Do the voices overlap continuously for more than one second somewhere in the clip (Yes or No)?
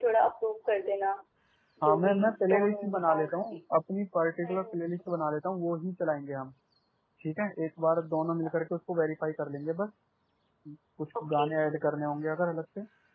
Yes